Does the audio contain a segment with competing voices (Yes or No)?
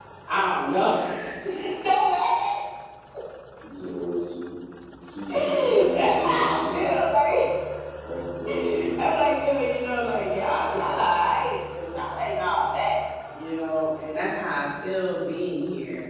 Yes